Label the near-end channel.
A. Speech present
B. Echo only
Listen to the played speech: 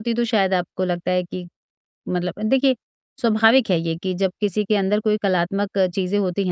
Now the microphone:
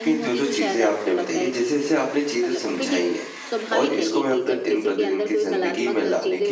A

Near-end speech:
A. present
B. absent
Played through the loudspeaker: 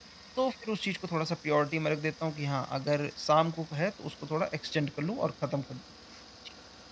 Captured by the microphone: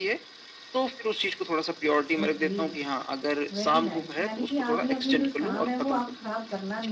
A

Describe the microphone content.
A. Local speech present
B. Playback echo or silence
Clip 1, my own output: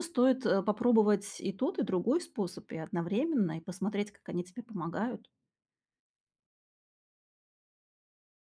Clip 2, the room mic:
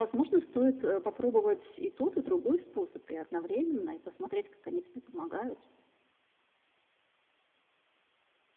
B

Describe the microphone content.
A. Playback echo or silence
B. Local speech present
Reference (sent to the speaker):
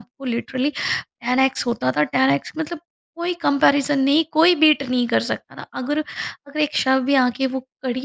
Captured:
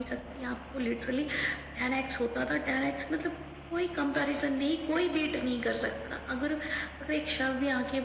A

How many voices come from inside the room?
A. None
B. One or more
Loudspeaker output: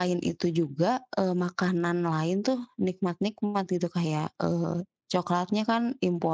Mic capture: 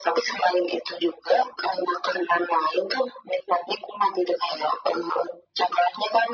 A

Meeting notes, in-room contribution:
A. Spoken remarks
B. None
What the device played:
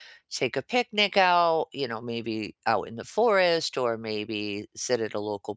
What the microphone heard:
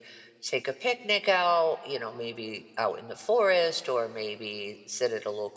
B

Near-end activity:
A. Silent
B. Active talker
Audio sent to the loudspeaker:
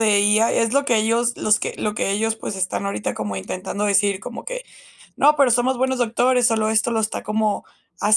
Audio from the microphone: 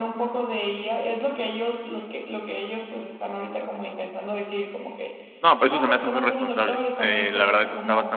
B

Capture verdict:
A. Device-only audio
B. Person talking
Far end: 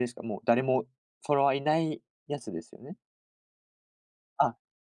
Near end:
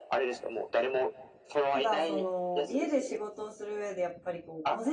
B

